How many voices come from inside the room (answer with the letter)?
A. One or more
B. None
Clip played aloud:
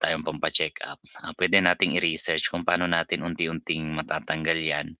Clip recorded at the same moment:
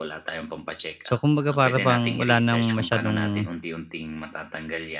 A